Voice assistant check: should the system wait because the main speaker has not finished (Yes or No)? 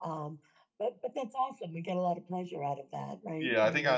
No